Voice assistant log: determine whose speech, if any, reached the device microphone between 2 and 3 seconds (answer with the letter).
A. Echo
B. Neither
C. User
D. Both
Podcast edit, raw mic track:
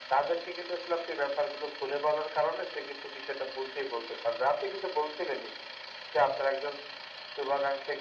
A